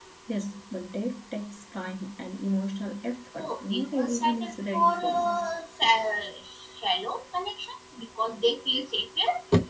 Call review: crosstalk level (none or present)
present